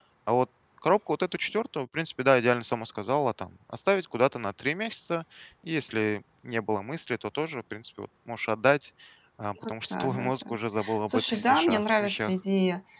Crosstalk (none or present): present